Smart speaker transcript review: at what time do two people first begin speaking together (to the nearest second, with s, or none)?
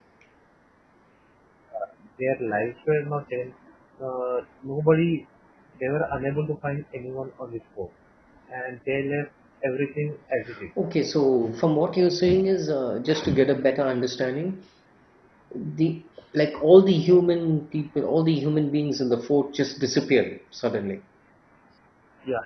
none